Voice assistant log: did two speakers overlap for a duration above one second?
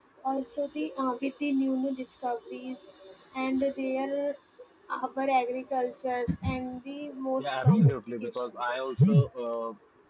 Yes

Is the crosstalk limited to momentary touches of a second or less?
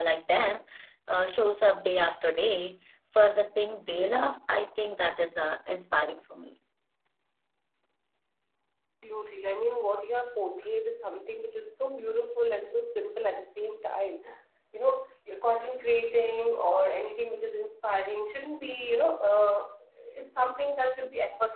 Yes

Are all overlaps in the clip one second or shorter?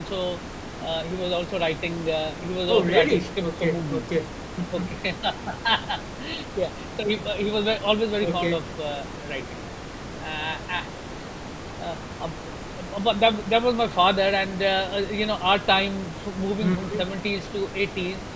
No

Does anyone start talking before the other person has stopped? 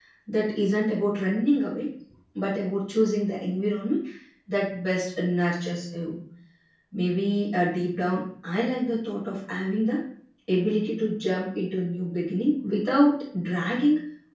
No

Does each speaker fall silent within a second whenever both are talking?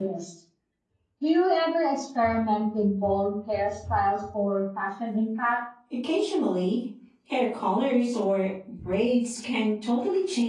Yes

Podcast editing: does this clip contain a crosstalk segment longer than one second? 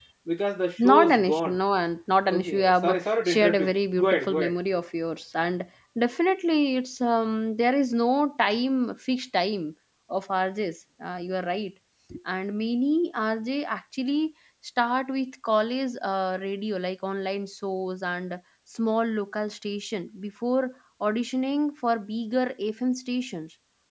Yes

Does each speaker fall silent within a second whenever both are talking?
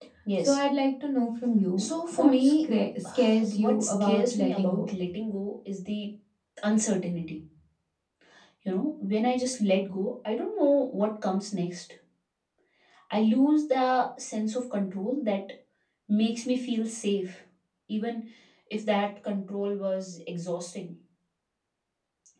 No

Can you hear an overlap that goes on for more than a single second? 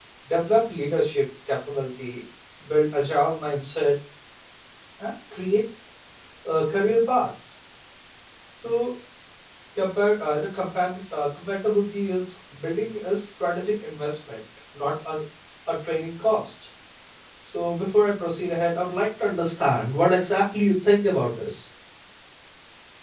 No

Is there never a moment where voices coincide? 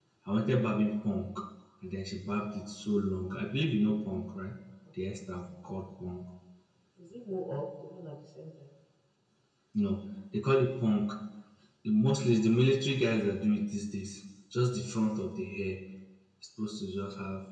Yes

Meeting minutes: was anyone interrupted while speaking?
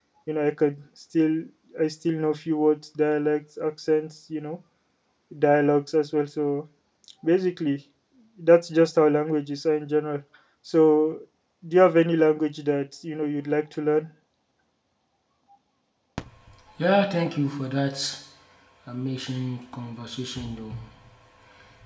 No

